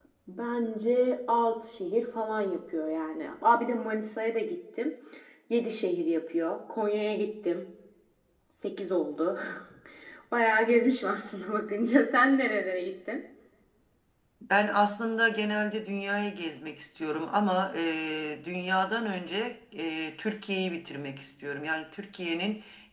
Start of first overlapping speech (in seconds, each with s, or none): none